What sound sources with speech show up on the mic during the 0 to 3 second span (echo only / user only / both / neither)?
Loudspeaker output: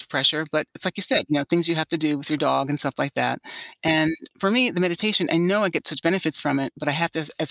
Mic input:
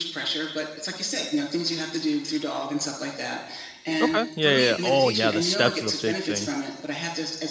echo only